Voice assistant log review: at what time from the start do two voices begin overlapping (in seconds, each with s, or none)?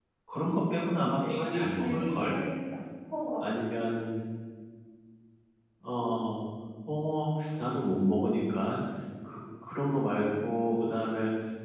1.0 s